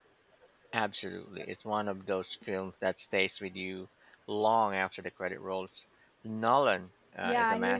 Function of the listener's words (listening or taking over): taking over